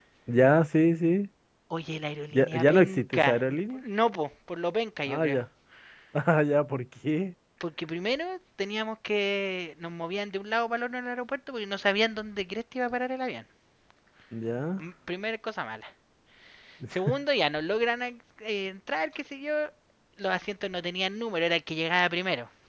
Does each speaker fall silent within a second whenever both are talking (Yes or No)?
No